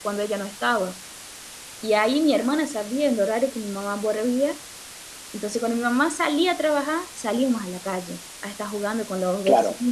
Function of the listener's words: listening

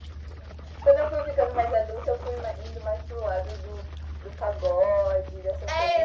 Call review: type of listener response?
taking over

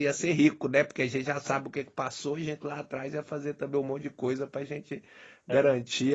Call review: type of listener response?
listening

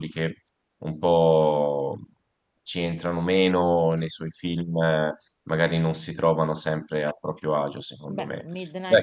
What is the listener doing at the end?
taking over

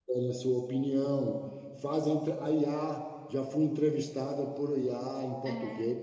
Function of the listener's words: taking over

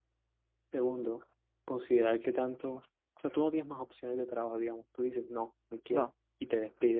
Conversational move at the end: listening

